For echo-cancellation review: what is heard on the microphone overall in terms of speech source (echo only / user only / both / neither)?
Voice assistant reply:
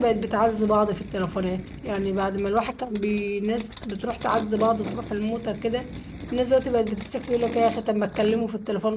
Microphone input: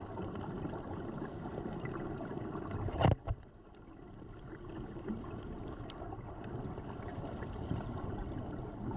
neither